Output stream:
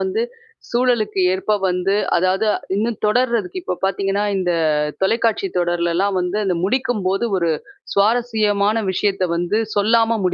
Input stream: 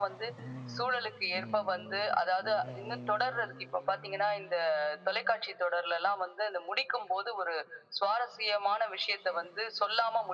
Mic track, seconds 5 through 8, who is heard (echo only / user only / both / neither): echo only